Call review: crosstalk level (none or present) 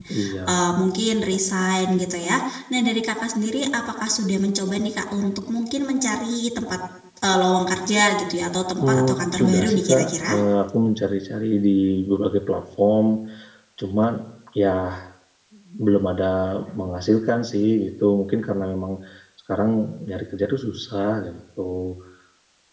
present